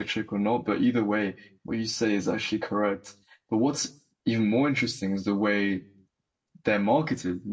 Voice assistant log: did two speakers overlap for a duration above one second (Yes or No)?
No